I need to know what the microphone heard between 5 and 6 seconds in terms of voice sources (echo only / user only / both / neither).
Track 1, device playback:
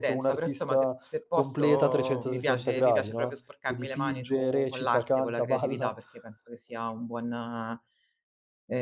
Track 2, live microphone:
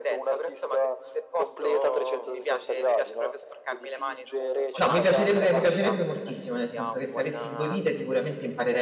both